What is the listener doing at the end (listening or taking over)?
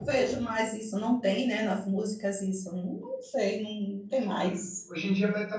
taking over